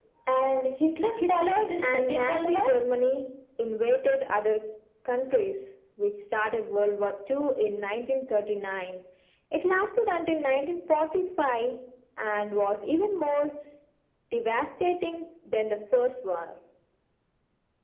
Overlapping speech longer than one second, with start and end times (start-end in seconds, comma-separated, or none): 1.1-2.6